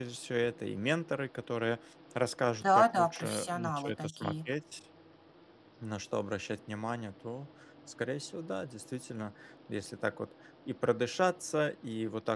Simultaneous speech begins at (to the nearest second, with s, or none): 3 s